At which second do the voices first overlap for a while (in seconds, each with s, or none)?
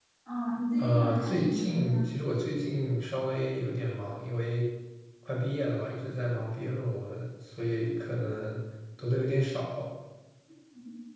0.8 s